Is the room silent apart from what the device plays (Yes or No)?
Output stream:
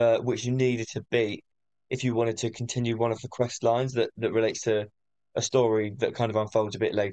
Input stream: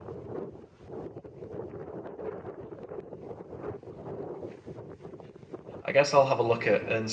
No